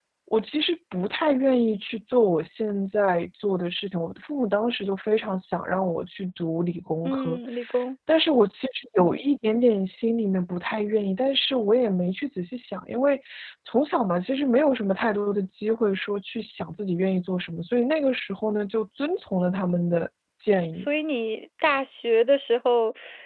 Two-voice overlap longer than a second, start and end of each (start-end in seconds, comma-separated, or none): none